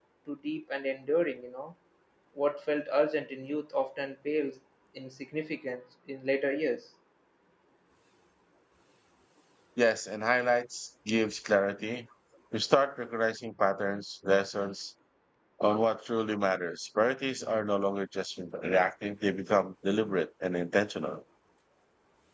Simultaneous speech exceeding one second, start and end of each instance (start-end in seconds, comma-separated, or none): none